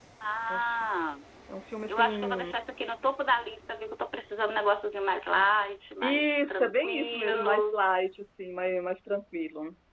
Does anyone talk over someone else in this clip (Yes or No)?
Yes